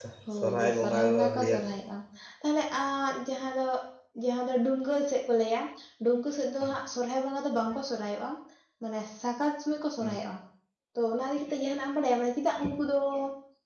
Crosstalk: present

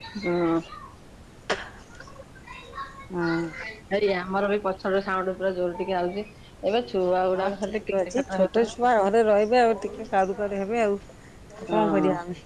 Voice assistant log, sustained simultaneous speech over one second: present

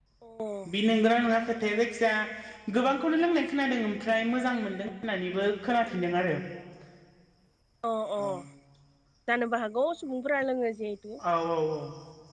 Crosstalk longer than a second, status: none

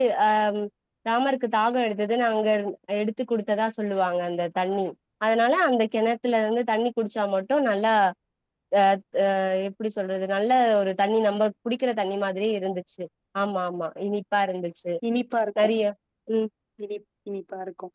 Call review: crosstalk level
none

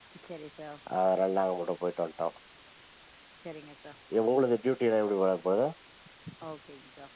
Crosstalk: none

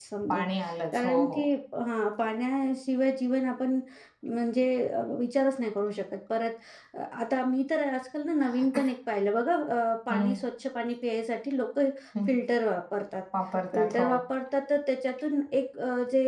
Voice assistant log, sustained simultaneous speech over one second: none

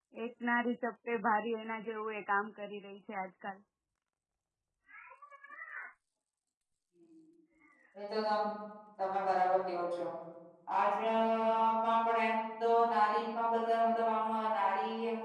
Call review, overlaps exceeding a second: none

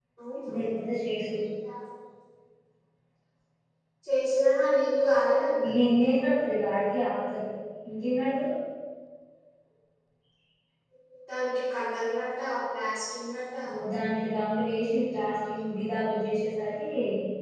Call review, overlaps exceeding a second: none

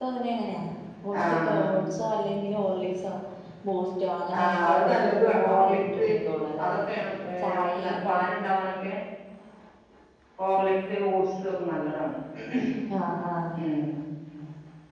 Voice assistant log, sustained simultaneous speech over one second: present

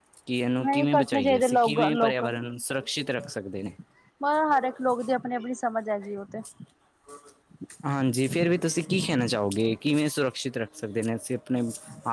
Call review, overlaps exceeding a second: present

